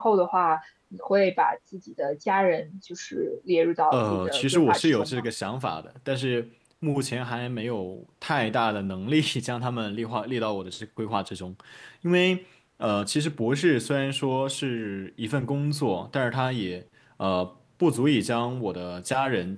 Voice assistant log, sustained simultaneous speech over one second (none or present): present